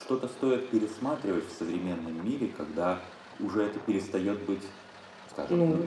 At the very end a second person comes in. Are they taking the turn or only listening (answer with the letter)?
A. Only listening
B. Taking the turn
B